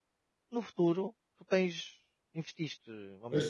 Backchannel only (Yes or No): Yes